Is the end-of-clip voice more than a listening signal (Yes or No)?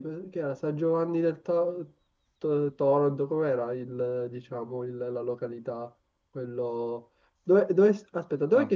No